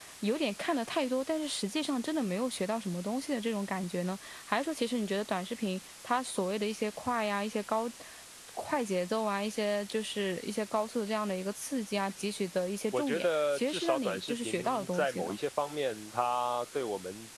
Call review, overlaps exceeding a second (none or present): present